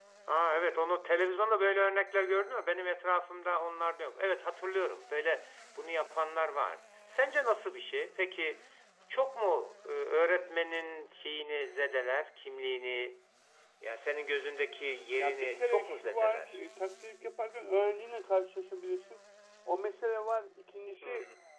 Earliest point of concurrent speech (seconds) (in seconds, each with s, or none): 15.2 s